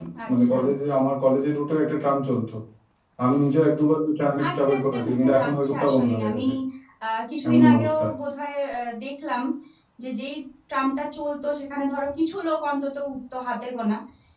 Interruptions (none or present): present